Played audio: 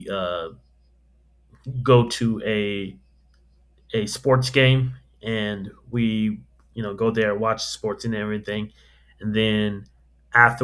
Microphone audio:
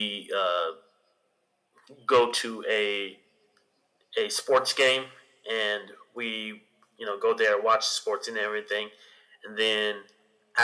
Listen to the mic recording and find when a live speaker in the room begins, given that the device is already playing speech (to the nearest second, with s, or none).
none